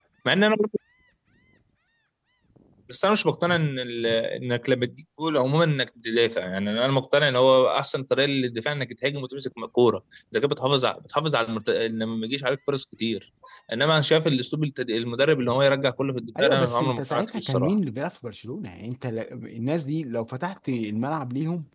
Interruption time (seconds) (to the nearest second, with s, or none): 16 s